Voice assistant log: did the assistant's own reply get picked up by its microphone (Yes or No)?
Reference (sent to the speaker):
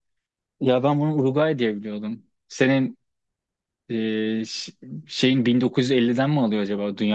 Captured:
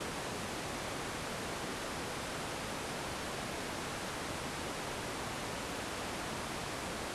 No